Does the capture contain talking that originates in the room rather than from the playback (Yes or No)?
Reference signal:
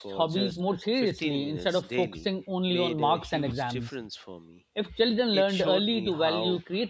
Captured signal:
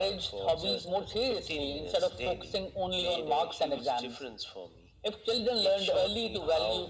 No